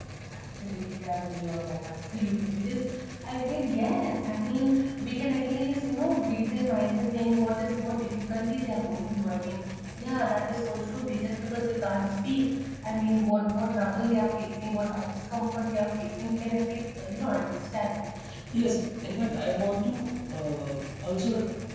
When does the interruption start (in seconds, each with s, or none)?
none